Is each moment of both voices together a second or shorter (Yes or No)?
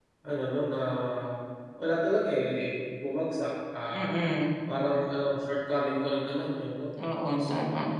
Yes